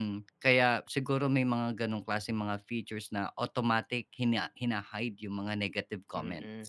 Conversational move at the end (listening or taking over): taking over